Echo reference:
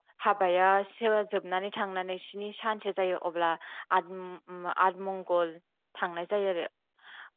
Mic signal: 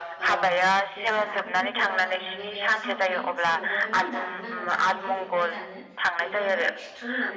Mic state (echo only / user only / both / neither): both